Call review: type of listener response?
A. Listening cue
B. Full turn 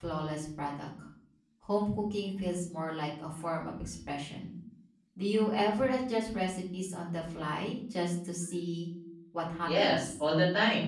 B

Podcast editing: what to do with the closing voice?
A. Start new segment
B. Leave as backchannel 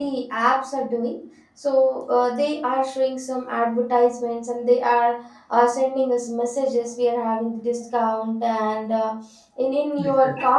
B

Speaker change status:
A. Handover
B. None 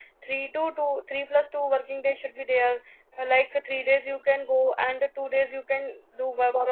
A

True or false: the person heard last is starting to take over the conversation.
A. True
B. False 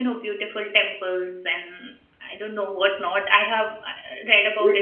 A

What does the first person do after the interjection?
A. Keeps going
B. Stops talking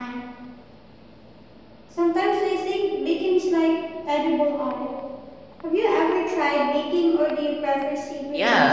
B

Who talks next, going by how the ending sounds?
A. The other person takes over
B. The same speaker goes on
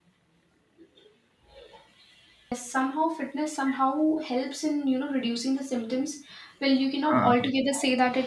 B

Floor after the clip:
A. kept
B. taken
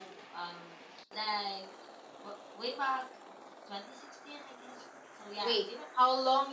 B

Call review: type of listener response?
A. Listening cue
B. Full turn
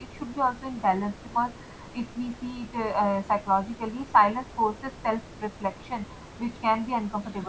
A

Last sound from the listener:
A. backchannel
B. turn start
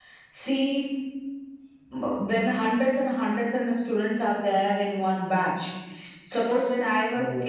A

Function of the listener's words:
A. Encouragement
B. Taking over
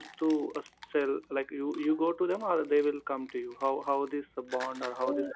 B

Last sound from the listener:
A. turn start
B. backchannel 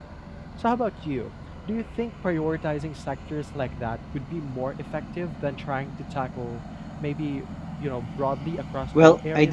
A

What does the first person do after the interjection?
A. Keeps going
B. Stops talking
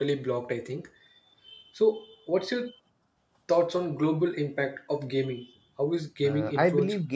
B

